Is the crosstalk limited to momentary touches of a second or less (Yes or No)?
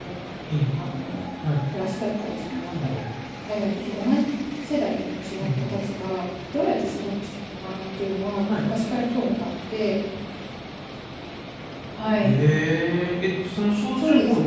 Yes